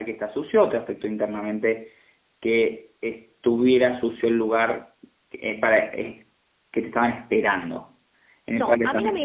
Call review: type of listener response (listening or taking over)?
taking over